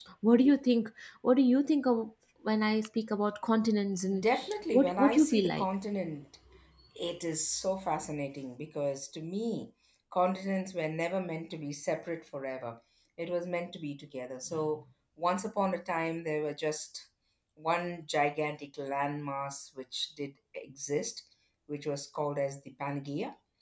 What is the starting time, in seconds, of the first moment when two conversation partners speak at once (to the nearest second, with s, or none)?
4 s